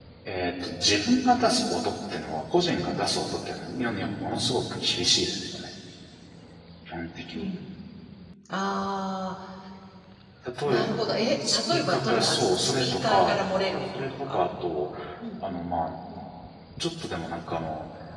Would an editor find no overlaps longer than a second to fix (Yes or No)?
No